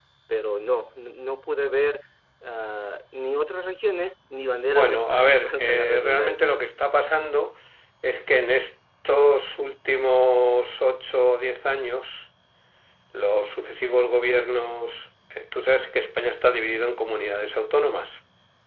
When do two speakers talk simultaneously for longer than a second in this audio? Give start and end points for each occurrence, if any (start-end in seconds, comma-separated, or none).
4.7-6.3